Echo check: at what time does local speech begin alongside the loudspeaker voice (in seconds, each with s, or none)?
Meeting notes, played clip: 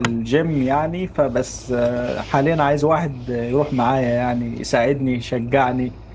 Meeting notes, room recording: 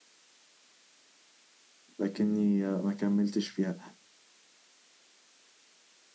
2.0 s